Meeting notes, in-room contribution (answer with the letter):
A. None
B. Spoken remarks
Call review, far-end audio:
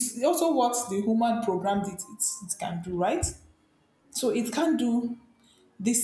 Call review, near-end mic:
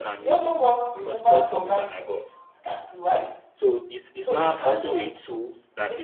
B